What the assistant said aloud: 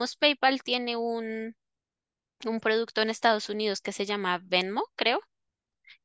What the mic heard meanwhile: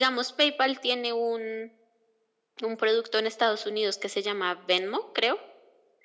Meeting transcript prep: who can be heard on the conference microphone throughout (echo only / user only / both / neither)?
echo only